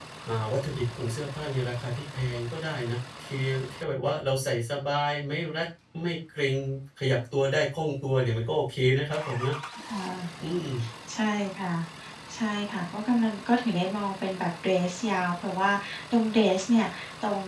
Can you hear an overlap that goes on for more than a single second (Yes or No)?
No